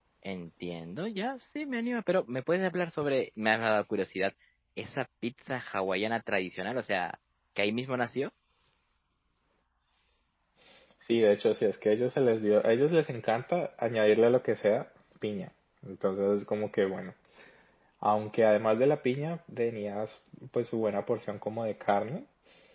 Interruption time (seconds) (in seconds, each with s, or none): none